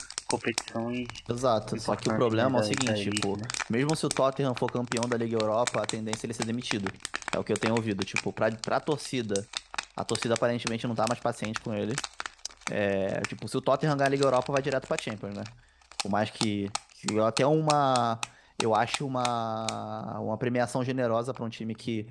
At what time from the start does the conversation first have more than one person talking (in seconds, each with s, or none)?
1.7 s